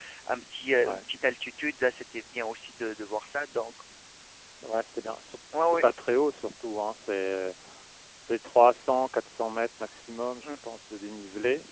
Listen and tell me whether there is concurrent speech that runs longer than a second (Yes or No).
No